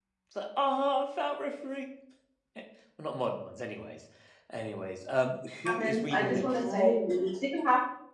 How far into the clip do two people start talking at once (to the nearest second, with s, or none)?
6 s